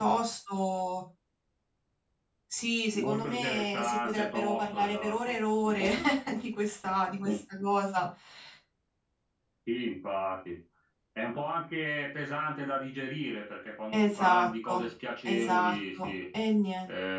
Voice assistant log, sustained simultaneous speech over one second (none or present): present